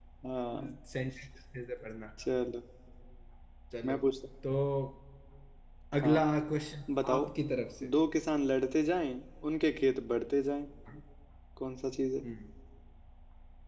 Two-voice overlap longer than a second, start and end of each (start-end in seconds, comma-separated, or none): none